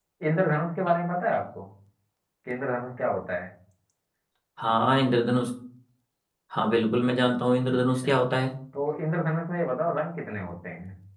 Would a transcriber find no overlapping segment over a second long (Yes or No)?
Yes